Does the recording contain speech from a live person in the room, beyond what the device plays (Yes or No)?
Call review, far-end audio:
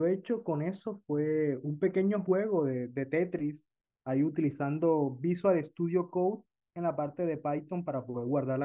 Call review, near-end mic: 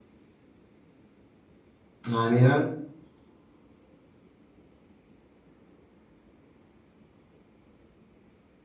Yes